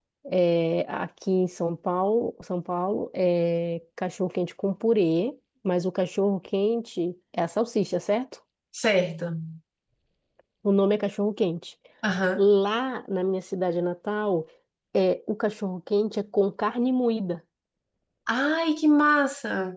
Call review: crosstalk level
none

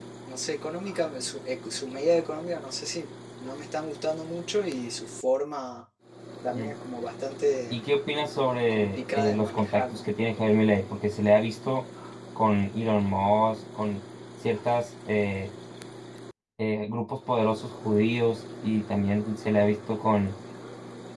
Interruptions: present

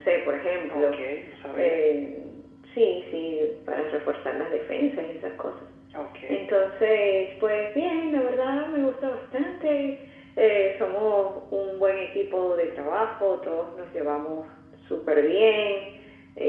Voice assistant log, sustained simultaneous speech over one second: none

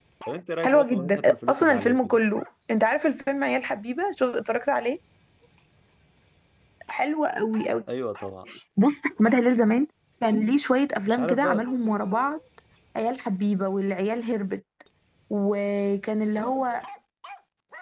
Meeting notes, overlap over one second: present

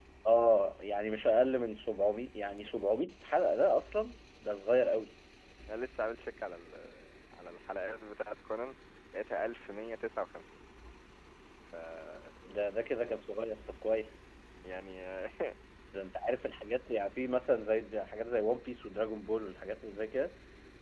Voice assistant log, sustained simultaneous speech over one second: none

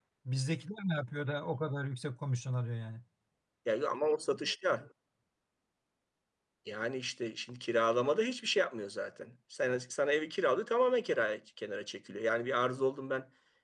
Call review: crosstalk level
none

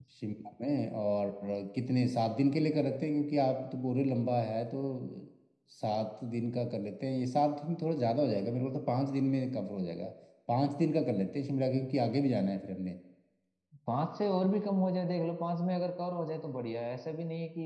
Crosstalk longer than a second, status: none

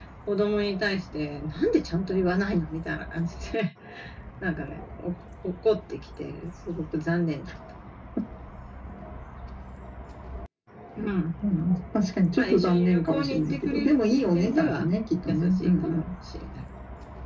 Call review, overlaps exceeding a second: present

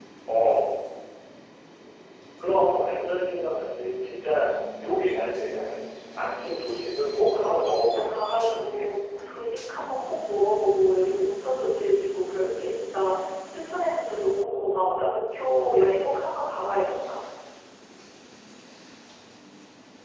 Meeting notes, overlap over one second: present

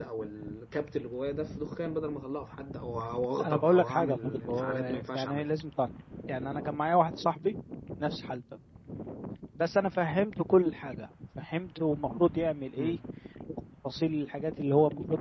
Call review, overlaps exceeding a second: present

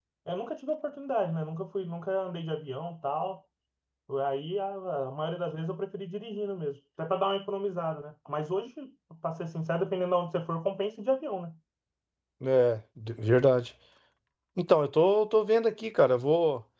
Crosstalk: none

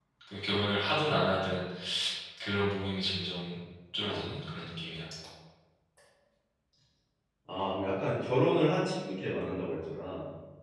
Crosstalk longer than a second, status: none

